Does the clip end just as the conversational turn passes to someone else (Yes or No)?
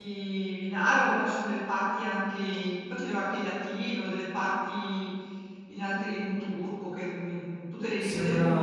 Yes